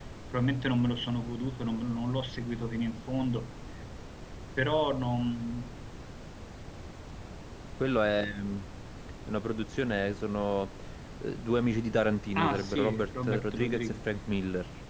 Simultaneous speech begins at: 12.4 s

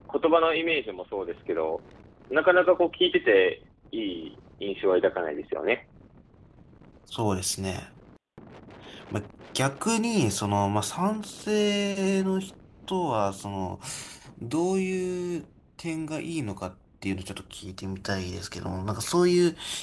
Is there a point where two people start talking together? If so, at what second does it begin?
none

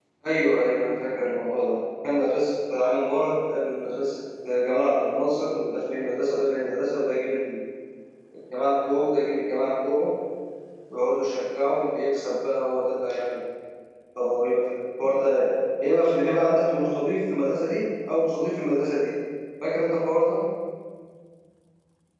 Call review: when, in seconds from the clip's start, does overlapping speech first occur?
none

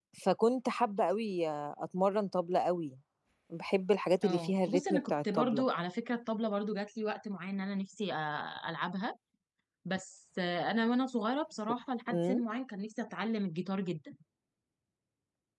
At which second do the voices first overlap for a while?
4.2 s

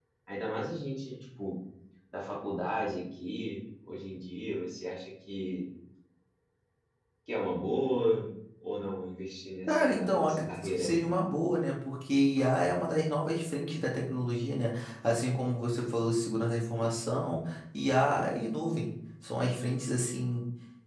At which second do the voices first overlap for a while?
9.7 s

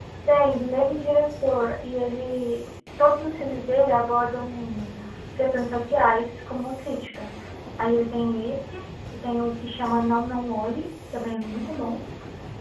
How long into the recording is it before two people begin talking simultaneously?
none

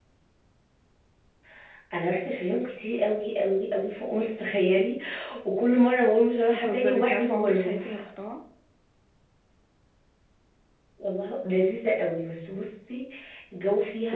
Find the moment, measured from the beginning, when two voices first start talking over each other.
6.5 s

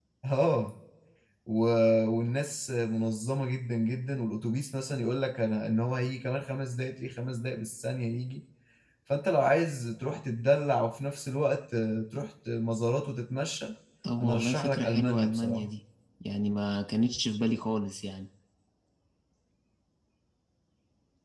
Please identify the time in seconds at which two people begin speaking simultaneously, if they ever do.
14.2 s

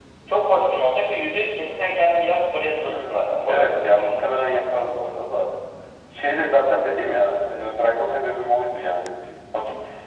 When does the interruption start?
2.8 s

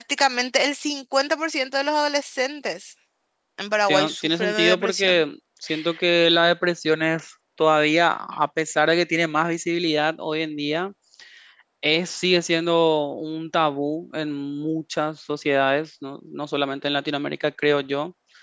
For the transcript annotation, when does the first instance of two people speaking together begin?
3.9 s

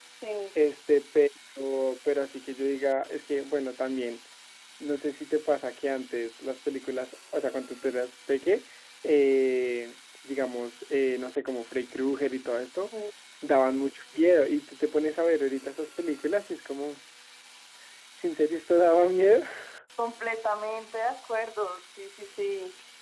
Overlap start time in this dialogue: none

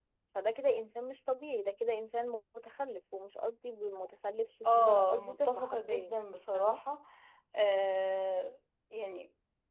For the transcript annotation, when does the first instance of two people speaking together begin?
4.7 s

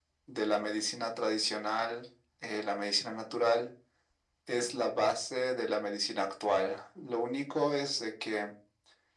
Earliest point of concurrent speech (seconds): none

